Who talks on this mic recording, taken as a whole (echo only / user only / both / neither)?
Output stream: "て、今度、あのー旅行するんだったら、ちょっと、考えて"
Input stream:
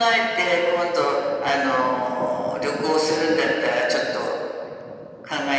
echo only